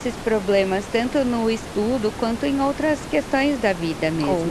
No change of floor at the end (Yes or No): No